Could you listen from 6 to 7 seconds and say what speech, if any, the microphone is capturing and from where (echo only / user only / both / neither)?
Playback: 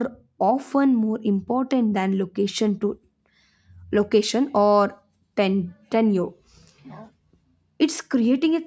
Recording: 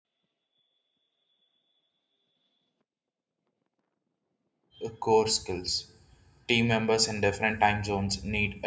user only